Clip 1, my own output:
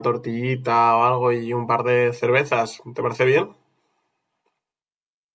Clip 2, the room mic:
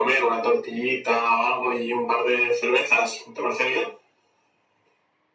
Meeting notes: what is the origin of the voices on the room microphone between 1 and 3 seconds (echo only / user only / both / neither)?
echo only